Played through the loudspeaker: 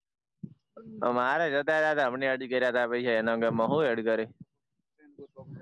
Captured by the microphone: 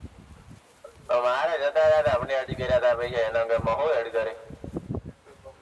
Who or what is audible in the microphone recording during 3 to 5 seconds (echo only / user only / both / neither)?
echo only